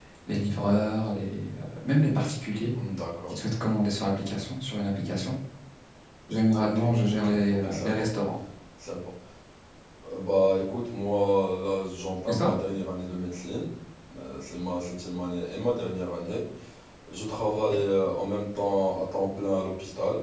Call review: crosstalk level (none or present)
present